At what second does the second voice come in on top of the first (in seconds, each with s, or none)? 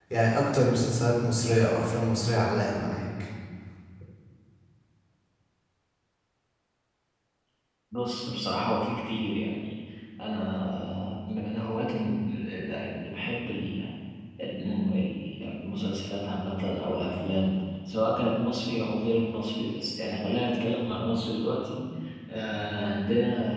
none